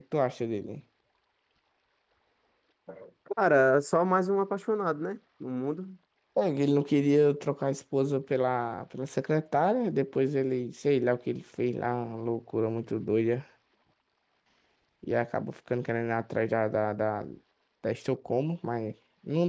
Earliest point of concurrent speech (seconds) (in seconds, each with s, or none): none